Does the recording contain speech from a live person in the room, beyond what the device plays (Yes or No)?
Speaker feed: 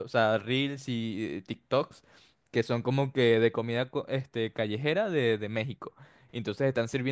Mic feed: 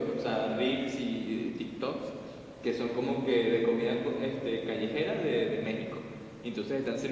No